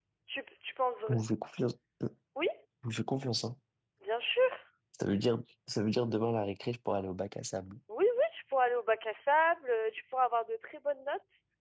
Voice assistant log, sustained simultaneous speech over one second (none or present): none